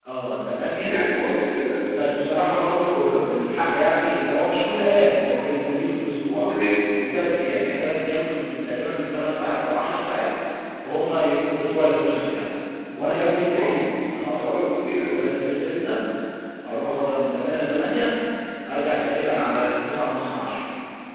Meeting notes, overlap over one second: none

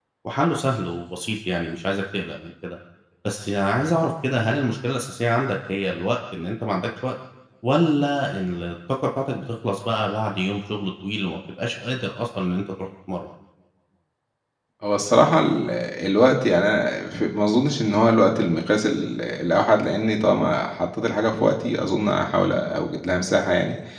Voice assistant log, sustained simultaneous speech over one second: none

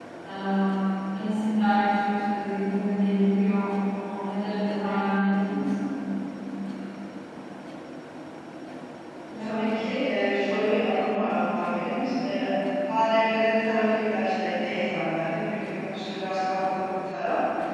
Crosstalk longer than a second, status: none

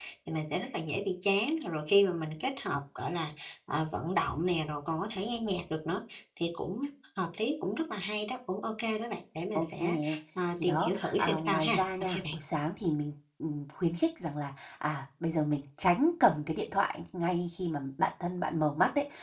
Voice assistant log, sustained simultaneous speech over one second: present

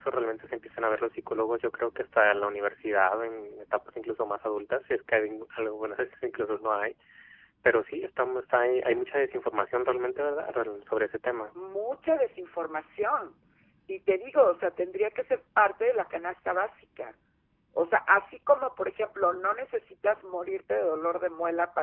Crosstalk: none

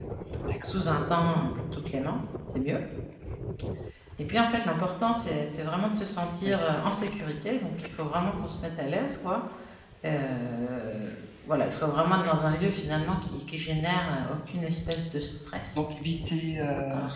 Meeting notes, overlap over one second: none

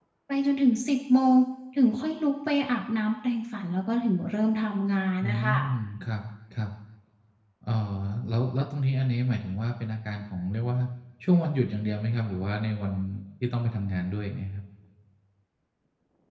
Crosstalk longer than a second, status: none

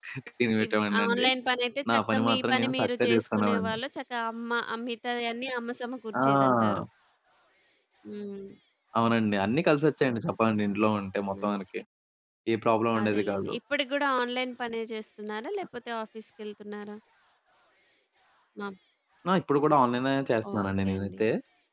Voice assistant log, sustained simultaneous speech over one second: present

